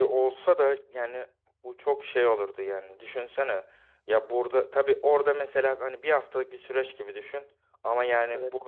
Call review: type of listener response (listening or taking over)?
listening